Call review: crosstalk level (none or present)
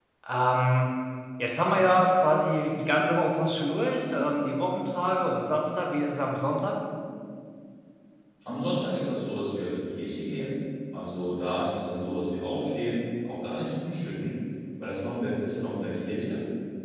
none